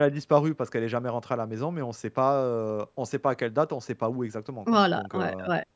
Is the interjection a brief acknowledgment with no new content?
No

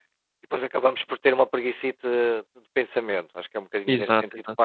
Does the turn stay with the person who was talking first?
Yes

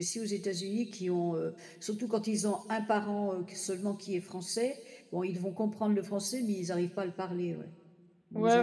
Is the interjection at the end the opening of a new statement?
Yes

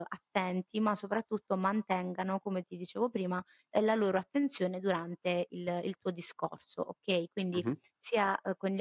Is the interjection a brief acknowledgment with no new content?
Yes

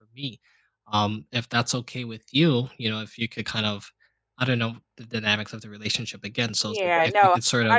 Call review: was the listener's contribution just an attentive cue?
No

